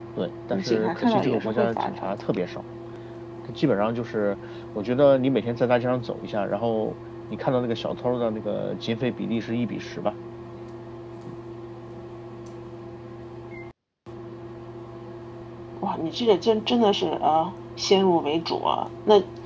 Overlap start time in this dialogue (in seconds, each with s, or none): 0.5 s